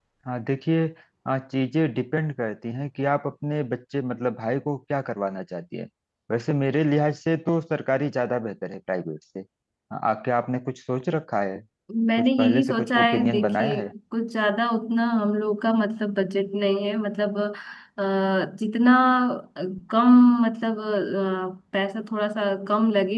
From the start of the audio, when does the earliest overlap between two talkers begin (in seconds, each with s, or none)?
12.2 s